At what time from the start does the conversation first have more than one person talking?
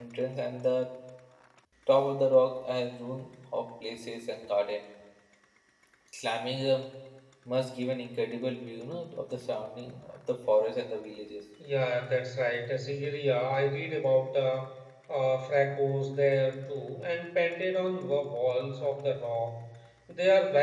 none

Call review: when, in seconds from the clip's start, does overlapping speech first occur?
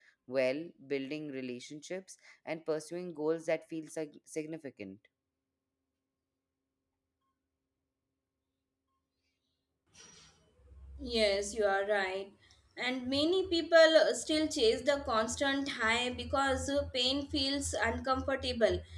none

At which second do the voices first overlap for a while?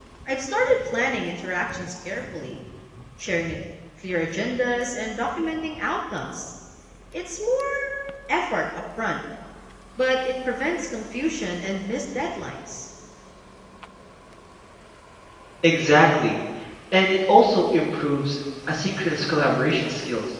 none

